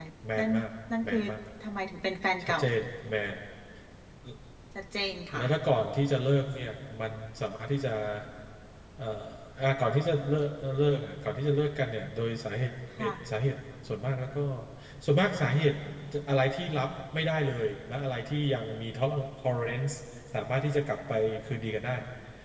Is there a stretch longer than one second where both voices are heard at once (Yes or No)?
No